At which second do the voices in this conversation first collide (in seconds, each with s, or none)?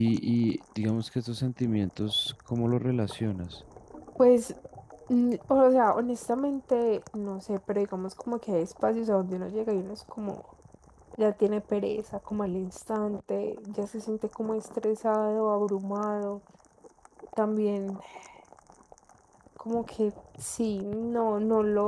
none